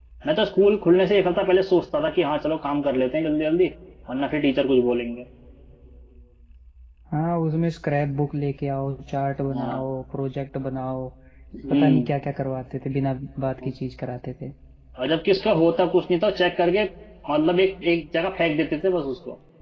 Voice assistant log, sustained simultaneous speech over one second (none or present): none